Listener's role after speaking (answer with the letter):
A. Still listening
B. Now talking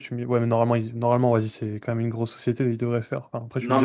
B